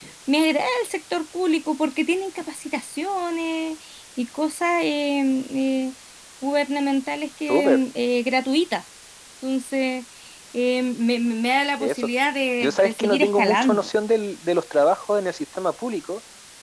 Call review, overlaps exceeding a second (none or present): present